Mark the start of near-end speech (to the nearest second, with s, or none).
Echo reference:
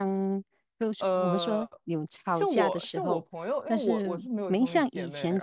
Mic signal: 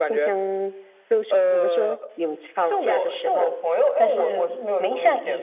none